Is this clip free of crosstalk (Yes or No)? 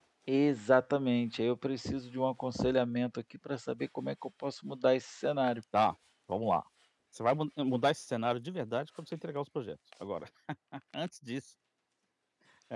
Yes